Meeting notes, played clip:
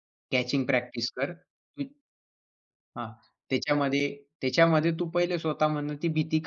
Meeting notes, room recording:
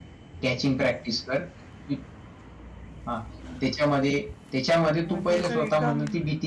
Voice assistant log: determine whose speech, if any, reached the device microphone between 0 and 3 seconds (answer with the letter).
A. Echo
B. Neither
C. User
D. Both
A